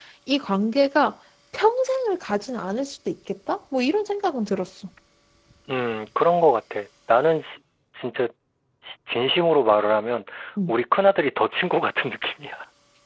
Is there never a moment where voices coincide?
Yes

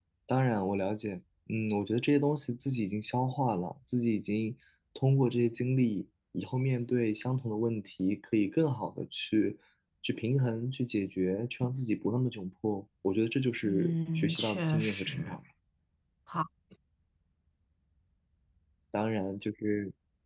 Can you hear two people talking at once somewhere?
Yes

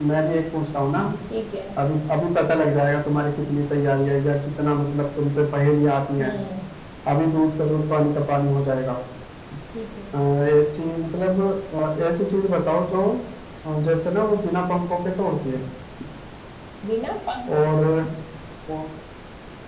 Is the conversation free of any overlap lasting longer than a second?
Yes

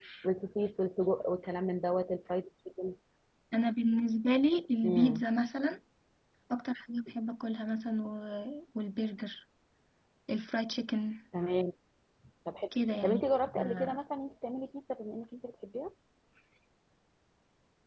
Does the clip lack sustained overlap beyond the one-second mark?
Yes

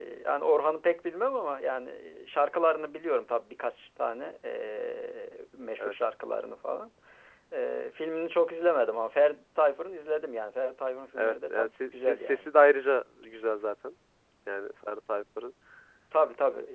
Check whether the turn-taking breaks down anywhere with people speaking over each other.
Yes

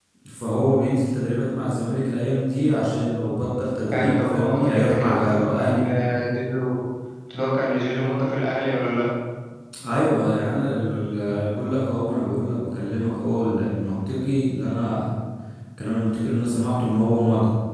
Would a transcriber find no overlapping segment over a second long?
No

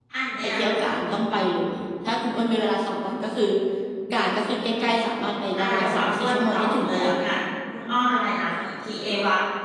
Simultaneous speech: Yes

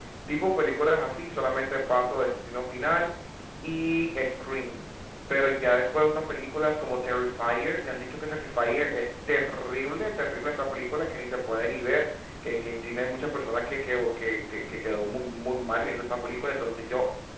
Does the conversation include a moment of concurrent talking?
No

